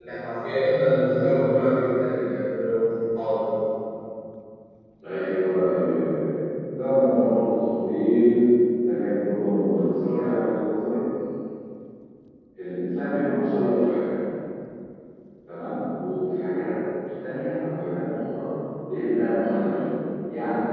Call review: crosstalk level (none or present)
none